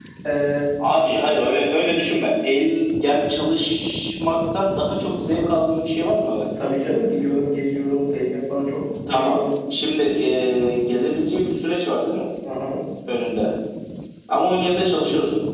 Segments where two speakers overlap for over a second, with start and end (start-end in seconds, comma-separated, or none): none